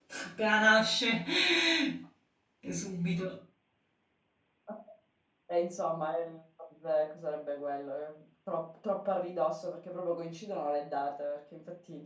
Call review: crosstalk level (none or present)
none